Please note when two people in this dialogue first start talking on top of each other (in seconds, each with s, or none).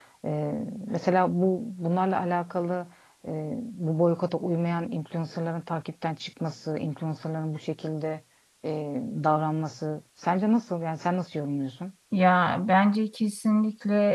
none